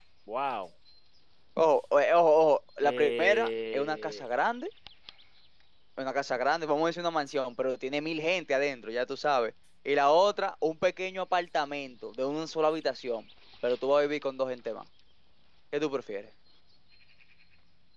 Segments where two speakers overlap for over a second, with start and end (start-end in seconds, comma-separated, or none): 2.8-4.2